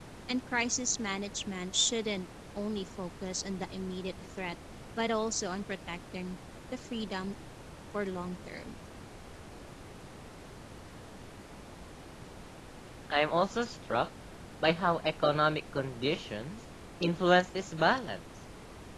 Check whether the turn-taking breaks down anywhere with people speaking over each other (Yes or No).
No